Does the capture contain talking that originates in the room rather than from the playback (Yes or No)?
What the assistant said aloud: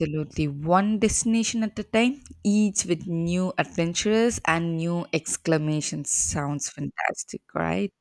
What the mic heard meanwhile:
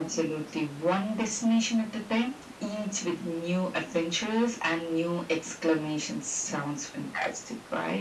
No